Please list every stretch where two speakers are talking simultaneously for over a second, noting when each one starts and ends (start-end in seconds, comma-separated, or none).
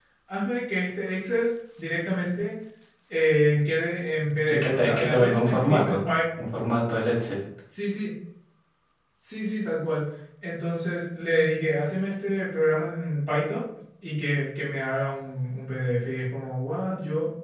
4.5-6.0